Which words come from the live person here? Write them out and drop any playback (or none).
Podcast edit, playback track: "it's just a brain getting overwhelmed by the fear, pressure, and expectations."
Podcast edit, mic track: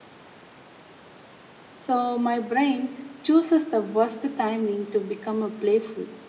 So my brain chooses the worst timing to become a playful.